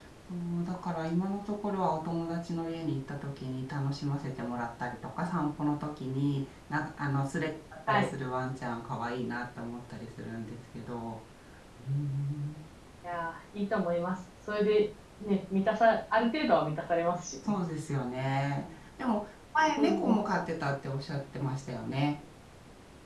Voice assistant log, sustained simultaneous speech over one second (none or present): none